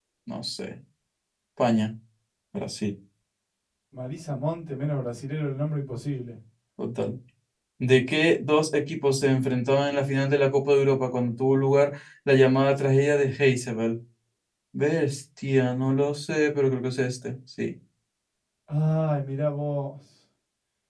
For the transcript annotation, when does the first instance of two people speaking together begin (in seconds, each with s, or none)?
none